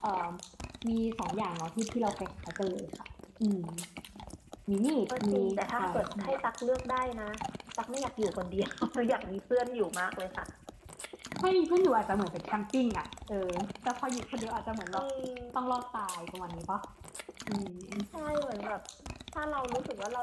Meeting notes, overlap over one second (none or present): present